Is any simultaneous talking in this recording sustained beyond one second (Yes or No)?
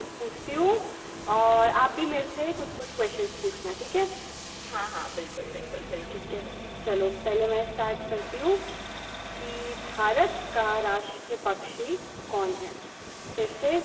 No